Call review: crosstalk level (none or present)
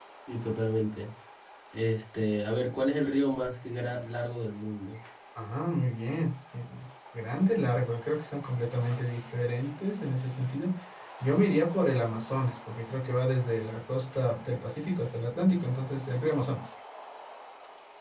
none